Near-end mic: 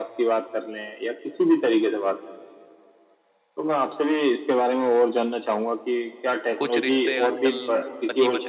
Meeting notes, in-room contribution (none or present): present